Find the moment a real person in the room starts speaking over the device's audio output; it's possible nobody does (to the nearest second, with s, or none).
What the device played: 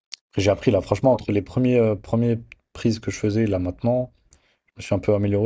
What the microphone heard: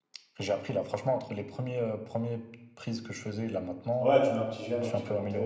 4 s